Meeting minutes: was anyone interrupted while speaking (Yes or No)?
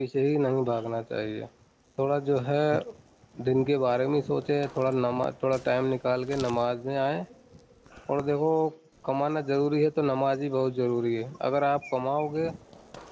No